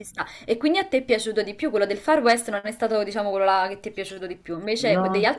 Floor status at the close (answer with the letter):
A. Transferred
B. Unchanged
B